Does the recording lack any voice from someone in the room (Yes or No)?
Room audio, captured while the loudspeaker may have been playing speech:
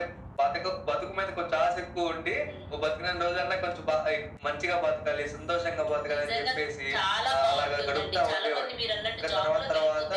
Yes